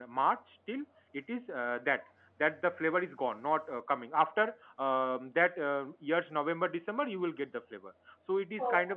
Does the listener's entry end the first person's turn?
No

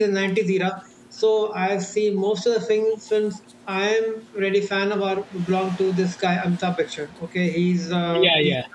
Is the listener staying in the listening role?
Yes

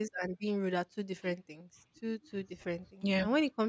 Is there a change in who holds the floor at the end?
No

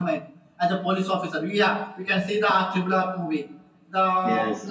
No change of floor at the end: Yes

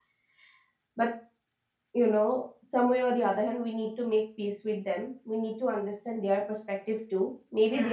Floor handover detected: No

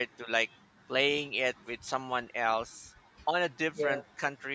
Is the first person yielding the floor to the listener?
No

